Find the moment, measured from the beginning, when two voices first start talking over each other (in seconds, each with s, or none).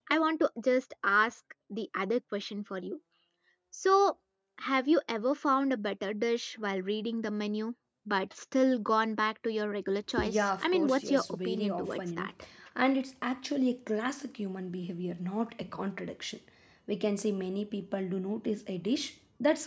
10.2 s